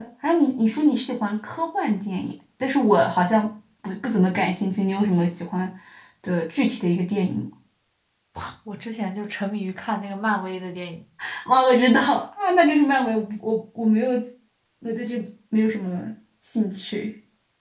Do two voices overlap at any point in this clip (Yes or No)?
No